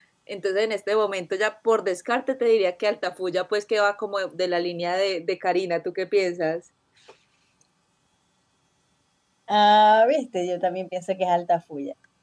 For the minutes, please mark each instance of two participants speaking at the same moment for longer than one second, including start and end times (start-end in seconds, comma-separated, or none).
none